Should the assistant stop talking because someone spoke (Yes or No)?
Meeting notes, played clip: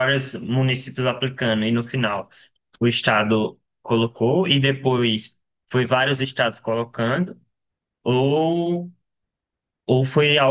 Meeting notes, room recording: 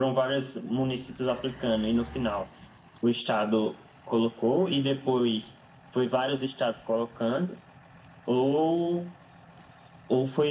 No